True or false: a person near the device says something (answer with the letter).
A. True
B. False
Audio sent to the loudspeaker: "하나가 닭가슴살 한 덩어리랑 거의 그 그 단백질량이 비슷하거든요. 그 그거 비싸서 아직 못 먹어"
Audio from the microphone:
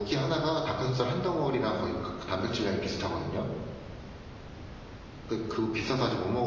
B